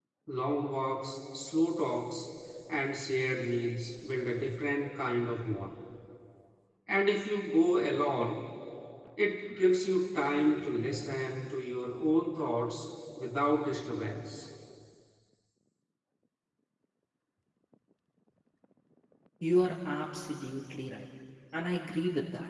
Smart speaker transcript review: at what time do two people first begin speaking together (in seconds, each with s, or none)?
none